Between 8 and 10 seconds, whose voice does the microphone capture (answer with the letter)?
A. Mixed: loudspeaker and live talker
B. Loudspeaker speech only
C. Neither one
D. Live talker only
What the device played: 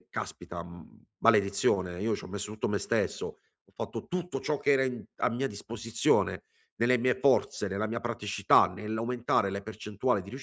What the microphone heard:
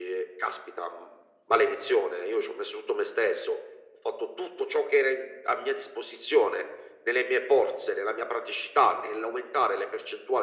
B